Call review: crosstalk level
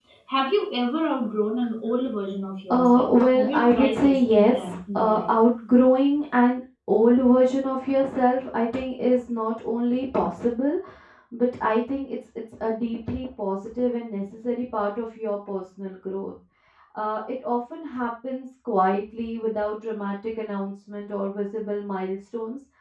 present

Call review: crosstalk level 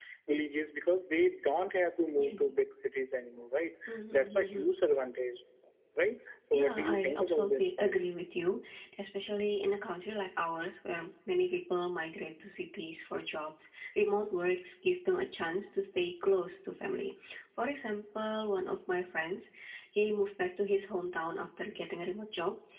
present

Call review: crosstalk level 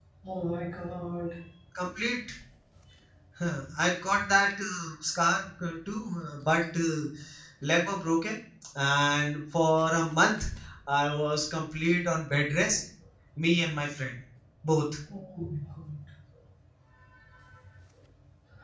none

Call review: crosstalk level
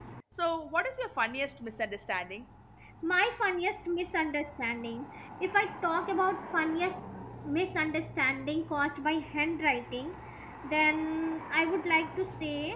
none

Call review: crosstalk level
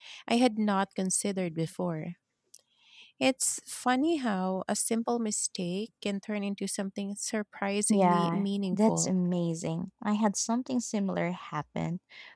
present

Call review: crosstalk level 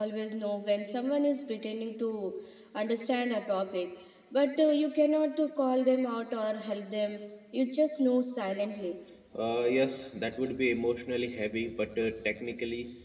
none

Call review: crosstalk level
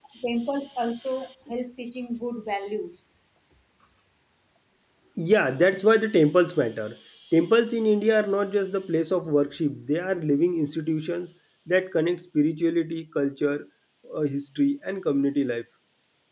none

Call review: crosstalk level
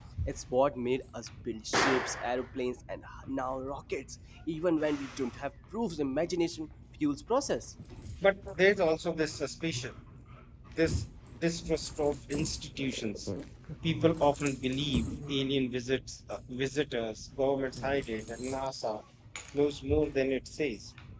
none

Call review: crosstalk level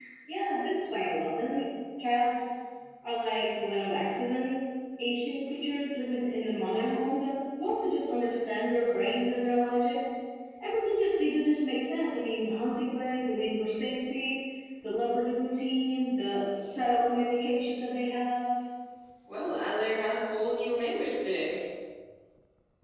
none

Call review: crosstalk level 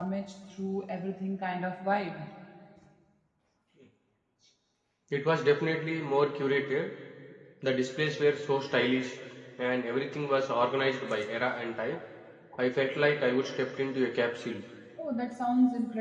none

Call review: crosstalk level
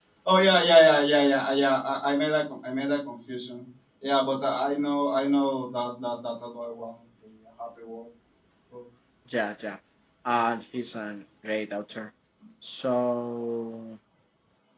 none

